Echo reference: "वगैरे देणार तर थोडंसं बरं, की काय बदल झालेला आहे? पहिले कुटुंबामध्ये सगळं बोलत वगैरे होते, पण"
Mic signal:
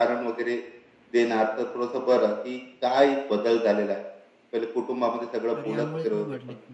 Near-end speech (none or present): present